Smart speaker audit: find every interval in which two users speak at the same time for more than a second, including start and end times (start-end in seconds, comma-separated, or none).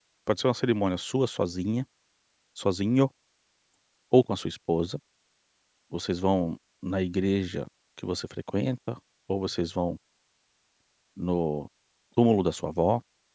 none